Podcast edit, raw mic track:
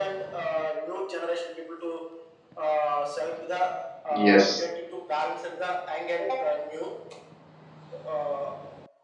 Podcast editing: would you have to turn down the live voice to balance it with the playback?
Yes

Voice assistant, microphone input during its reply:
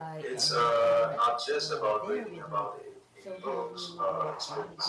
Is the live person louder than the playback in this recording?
No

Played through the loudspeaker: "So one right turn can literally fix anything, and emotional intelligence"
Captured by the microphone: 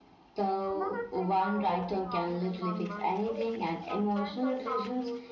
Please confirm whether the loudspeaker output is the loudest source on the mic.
Yes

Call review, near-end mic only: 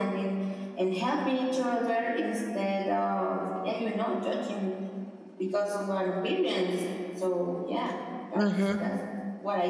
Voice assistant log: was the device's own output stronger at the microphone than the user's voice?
No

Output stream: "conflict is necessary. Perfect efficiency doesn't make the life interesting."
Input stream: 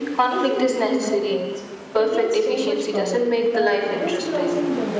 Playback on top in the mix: Yes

